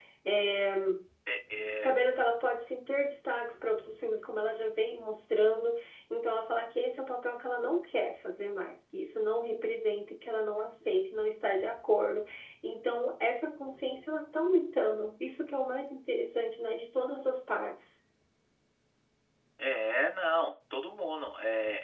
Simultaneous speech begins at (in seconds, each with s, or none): none